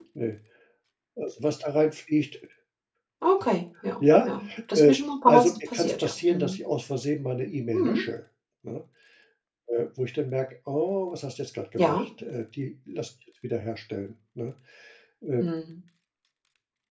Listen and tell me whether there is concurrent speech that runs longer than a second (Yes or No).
Yes